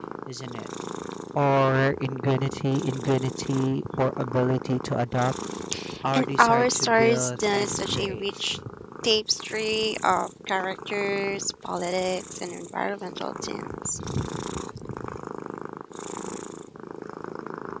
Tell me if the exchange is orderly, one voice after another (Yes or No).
No